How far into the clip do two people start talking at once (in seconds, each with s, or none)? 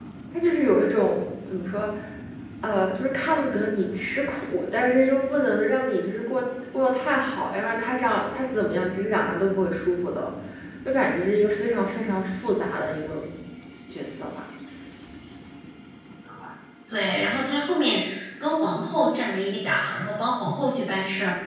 none